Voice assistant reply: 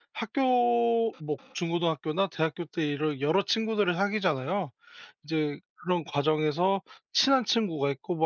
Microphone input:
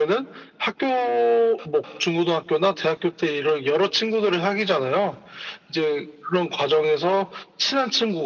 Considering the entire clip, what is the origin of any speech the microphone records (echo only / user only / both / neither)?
echo only